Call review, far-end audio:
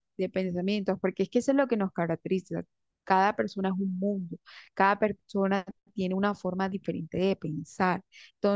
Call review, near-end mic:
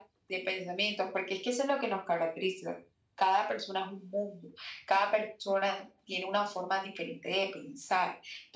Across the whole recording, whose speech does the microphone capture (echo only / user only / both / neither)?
echo only